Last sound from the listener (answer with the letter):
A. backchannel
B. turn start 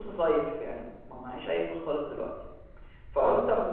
A